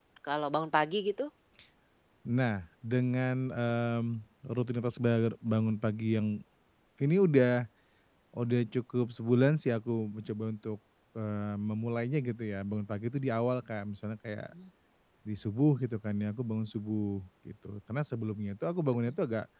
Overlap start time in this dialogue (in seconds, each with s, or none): none